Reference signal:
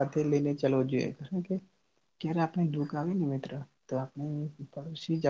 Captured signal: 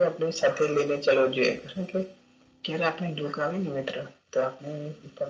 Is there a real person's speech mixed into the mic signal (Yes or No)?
No